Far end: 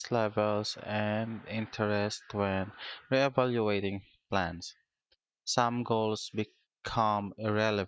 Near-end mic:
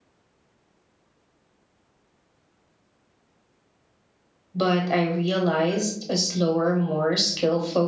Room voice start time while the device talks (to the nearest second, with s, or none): 5 s